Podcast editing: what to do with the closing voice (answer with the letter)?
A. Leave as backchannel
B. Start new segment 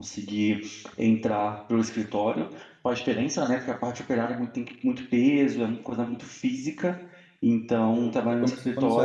B